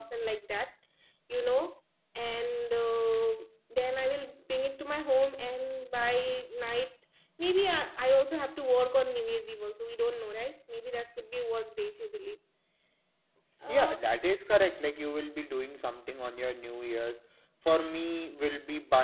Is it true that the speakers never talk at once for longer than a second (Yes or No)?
Yes